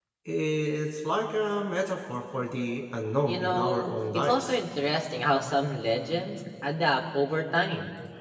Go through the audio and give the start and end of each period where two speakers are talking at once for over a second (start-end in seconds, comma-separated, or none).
3.2-4.5